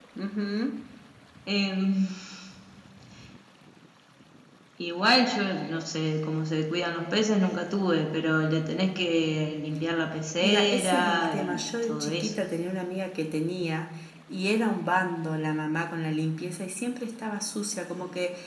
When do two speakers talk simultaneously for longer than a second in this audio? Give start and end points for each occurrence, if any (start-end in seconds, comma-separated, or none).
10.4-12.4